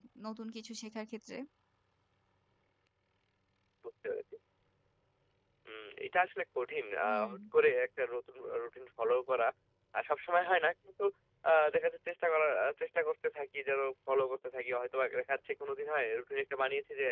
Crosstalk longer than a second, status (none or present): none